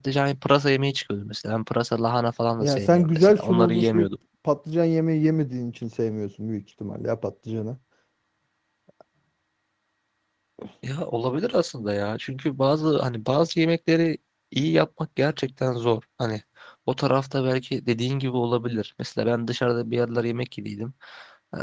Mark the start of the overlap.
2.6 s

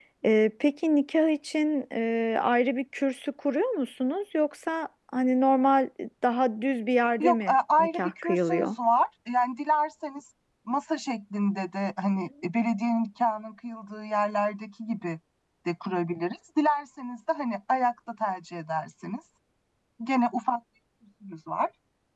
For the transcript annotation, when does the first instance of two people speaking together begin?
7.2 s

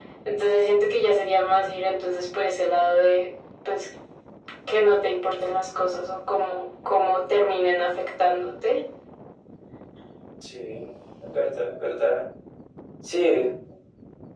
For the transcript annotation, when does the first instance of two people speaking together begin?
none

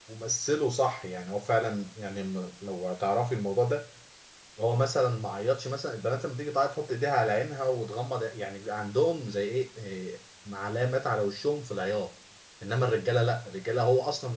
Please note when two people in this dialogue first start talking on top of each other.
none

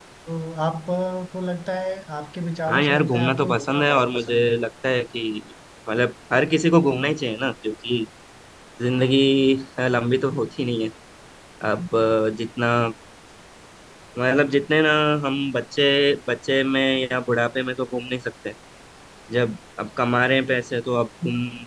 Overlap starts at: 2.7 s

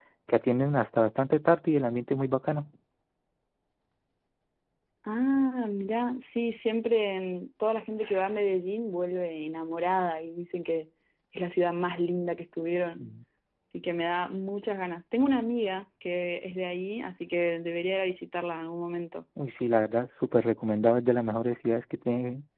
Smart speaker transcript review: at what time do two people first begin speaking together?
none

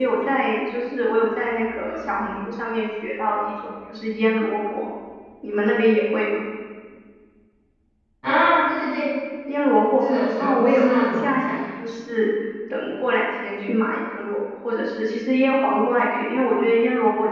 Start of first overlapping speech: 10.0 s

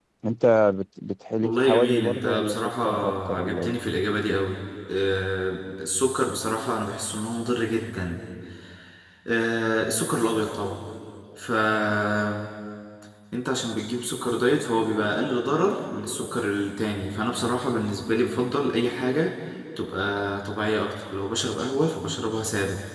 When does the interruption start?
1.4 s

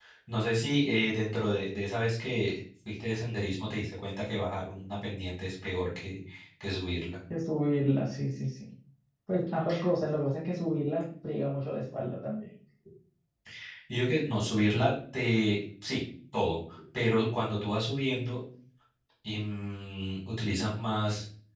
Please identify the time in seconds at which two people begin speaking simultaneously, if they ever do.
none

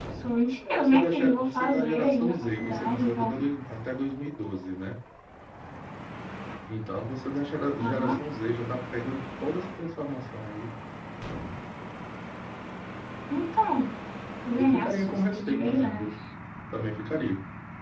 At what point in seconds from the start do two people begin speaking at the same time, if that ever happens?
0.7 s

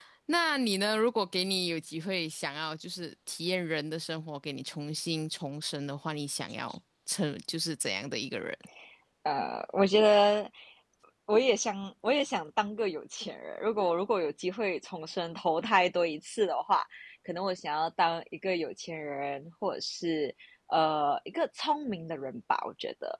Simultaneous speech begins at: none

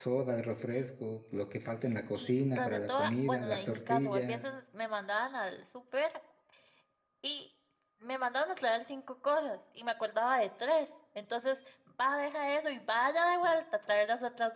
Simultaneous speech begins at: 2.1 s

